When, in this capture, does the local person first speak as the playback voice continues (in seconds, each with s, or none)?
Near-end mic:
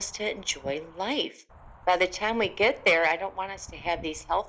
none